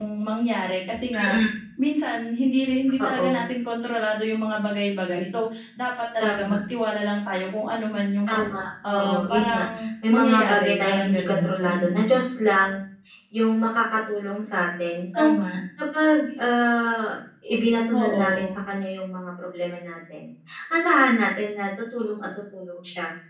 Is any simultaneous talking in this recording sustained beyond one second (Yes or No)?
Yes